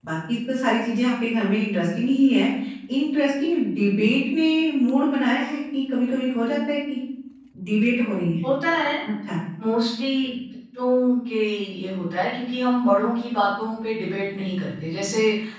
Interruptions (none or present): none